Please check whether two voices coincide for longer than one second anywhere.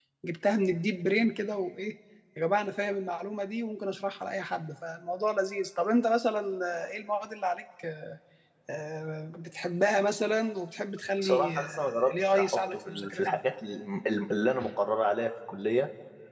Yes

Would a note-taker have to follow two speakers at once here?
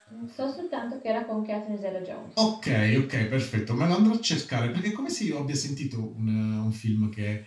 No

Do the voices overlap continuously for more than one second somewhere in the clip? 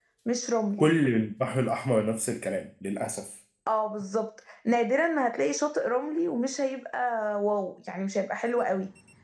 No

